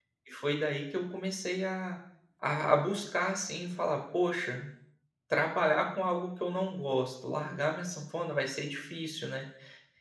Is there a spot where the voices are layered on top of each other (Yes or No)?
No